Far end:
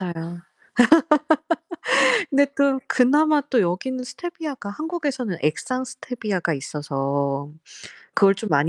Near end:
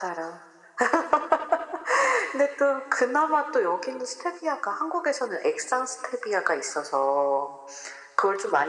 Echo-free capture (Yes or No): No